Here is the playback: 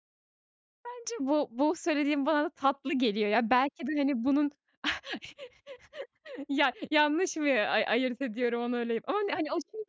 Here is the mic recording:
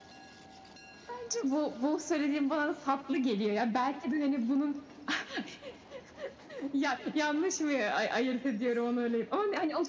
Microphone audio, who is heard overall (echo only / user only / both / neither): echo only